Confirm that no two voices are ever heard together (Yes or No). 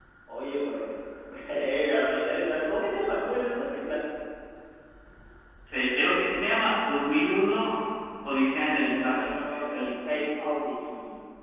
No